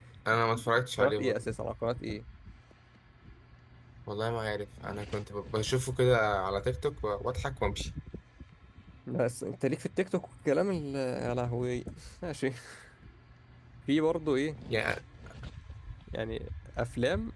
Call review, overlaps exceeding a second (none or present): none